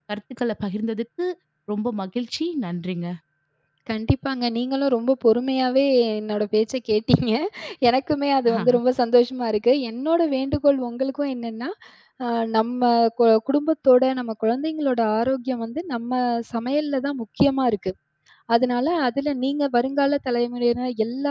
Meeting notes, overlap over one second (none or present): none